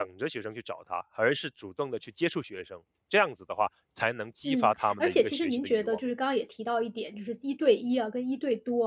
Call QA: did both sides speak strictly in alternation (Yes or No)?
No